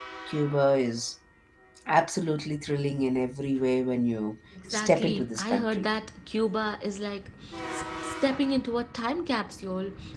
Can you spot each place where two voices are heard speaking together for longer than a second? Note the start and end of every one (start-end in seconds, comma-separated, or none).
4.7-5.9